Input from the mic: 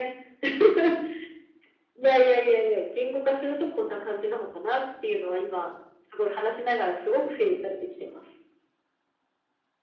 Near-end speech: none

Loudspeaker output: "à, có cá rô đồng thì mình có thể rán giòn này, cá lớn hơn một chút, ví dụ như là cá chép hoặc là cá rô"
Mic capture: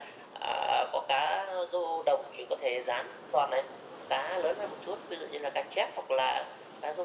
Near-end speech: none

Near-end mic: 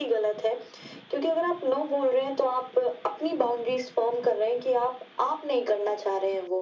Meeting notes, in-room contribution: none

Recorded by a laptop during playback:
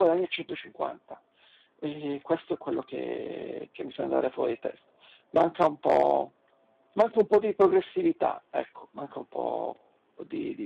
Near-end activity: present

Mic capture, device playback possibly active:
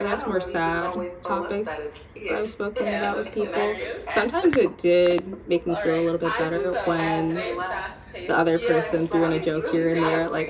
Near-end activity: present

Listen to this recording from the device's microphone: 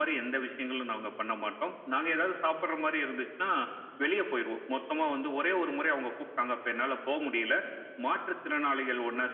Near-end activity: none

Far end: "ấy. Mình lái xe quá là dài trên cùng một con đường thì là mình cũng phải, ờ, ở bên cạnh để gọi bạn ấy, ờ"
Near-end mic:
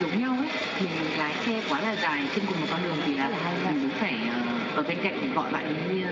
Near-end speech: present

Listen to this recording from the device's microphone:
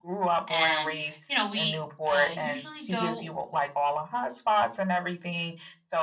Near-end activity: present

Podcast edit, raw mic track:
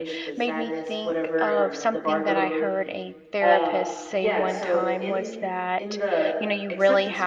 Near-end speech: present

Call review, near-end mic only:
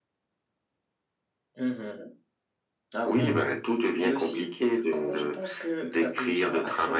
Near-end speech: present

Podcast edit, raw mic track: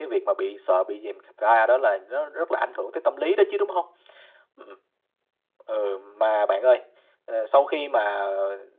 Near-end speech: none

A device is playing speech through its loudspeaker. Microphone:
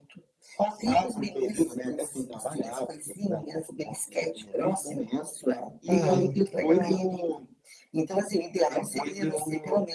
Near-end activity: present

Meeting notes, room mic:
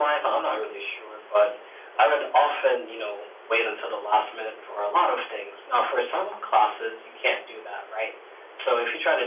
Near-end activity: none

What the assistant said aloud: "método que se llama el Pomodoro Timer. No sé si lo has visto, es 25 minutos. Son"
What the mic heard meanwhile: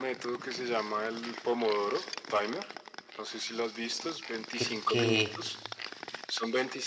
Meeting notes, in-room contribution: present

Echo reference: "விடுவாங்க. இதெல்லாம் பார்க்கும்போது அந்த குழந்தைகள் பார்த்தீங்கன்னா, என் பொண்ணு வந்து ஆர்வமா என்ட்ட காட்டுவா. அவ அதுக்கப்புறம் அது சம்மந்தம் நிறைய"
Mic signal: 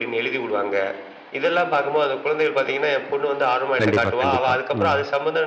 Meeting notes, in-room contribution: present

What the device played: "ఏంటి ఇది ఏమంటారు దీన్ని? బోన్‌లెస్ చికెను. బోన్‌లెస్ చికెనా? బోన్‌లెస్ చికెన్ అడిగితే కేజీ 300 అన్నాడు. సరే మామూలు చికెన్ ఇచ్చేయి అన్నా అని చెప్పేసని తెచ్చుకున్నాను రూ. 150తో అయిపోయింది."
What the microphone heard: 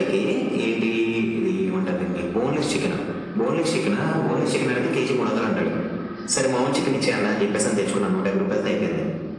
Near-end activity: none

